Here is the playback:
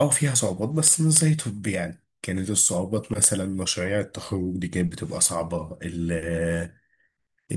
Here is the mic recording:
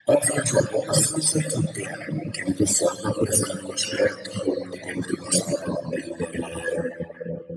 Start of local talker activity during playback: none

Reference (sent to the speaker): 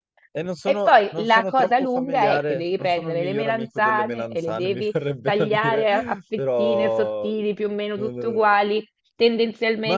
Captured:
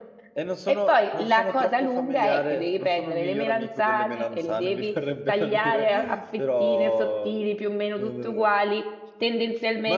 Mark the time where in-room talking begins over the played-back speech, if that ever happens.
none

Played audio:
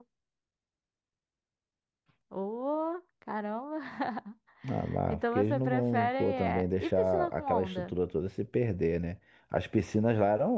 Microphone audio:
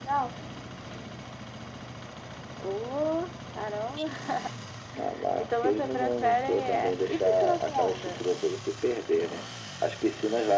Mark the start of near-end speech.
none

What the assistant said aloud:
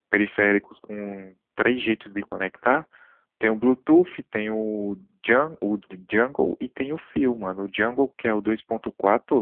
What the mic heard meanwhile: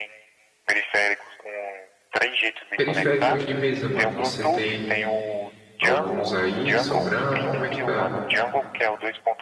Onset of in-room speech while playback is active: 2.7 s

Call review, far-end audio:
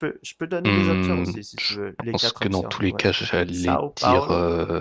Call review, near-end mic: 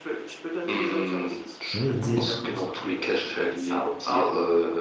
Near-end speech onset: 1.7 s

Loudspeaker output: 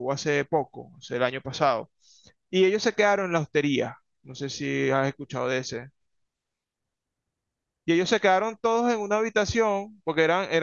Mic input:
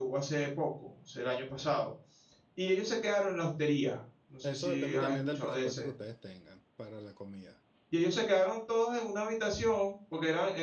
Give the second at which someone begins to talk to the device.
4.4 s

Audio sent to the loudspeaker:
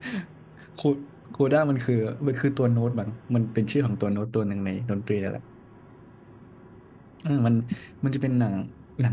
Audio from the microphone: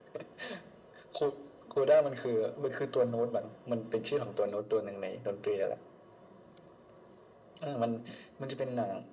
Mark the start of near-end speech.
none

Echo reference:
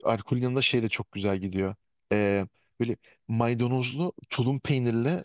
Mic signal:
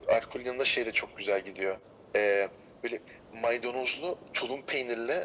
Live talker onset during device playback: none

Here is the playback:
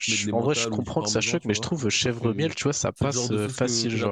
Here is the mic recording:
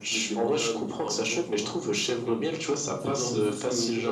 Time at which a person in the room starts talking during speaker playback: none

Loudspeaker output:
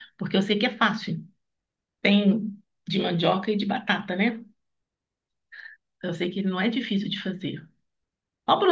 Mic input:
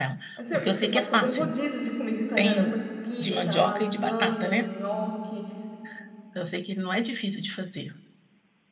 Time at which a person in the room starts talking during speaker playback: 0.4 s

